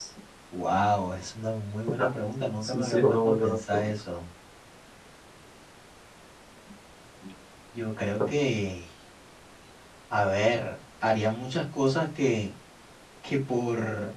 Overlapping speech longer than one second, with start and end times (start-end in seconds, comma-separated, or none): 2.6-3.9